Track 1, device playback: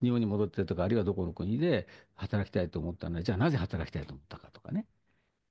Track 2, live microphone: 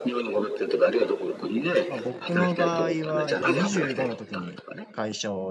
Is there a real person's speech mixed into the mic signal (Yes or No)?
Yes